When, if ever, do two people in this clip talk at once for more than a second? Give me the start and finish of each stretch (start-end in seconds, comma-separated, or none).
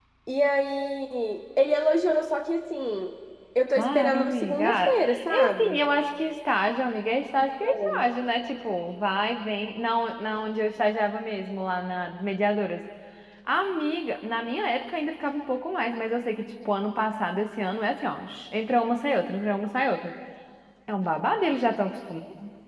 3.8-5.8